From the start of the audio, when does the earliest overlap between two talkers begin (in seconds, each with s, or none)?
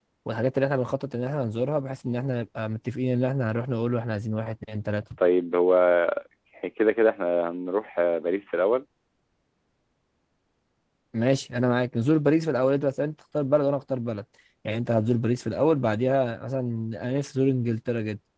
none